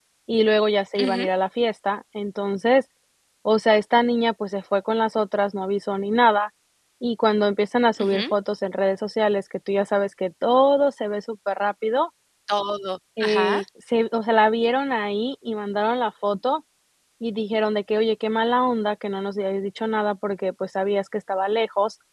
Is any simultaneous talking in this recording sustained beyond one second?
No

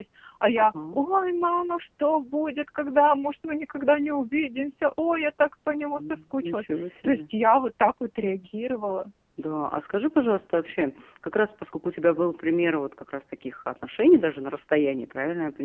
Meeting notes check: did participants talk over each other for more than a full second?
Yes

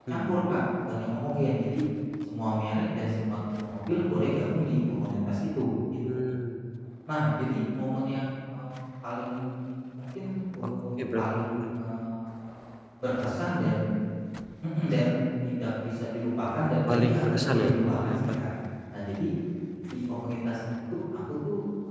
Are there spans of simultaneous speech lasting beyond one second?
Yes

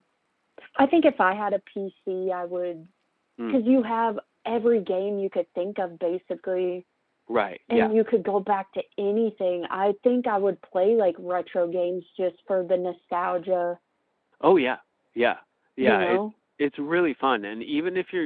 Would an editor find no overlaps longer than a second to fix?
Yes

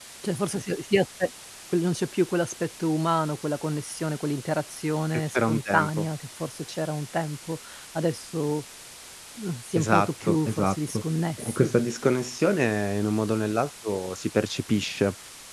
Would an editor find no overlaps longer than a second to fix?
No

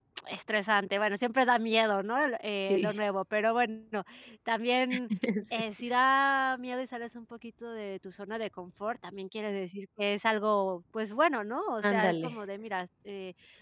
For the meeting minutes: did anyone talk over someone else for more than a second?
No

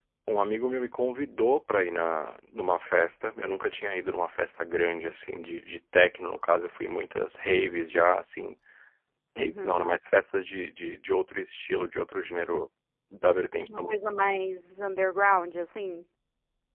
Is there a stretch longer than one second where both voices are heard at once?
No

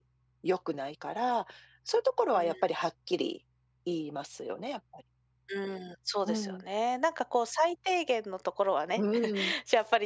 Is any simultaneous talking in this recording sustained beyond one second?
No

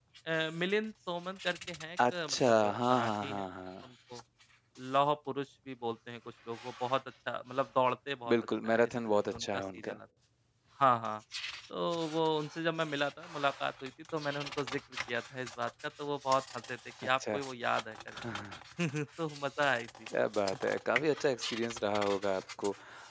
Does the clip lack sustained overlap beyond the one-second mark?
No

